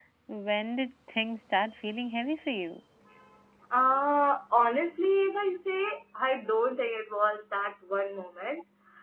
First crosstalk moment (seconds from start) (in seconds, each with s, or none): none